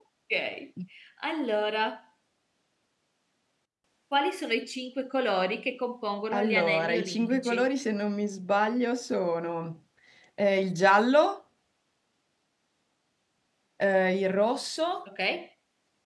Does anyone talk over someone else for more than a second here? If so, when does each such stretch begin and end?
6.3-7.7

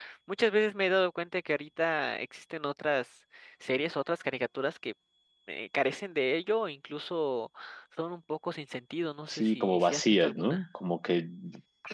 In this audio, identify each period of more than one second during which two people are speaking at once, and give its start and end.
9.3-10.6

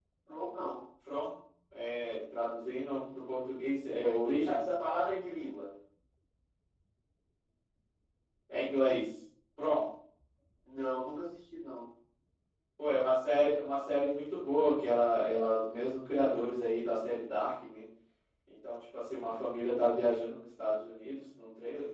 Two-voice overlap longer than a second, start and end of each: none

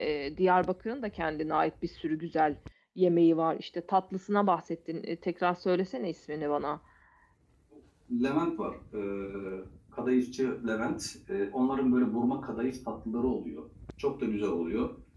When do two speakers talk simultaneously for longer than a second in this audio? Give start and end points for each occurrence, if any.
none

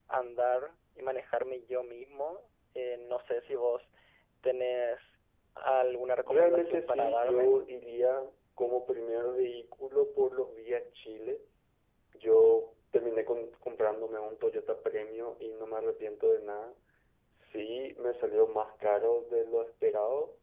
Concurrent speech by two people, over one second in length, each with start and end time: 6.2-7.6

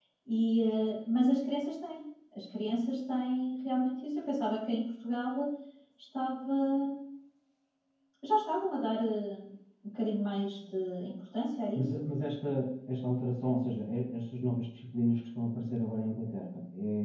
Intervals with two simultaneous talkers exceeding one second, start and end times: none

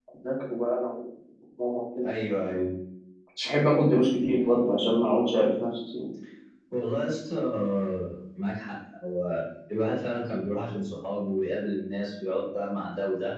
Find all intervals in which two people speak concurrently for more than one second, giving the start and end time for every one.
none

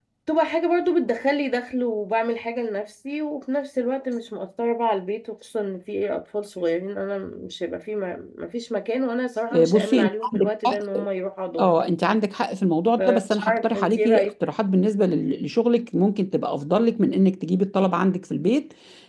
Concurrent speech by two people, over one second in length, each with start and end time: 9.5-10.8, 13.0-14.3

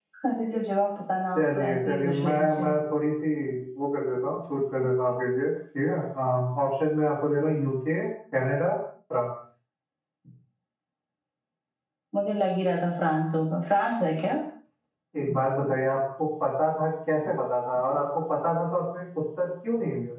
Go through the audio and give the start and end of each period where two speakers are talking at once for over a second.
1.4-2.7

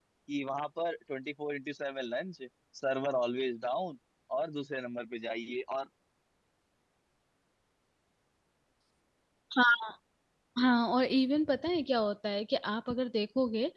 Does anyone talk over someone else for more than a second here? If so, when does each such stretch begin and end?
none

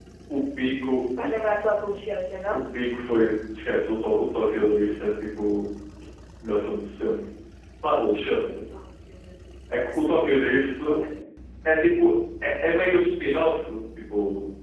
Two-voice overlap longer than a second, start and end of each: none

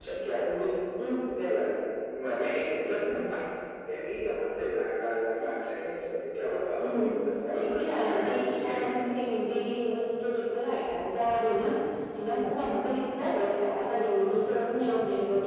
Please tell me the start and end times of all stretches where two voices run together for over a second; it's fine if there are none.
7.5-9.1

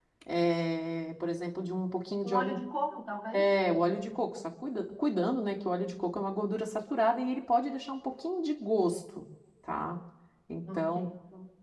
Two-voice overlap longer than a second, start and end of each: none

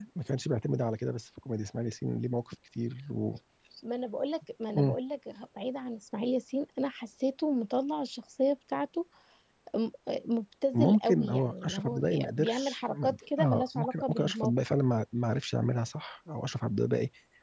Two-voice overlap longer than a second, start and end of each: 10.7-14.5

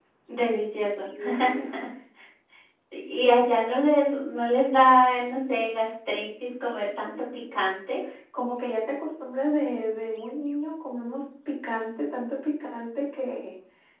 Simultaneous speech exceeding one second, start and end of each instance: none

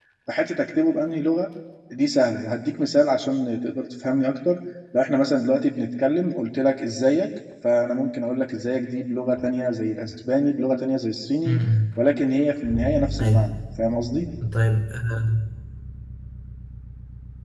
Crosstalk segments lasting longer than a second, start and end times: none

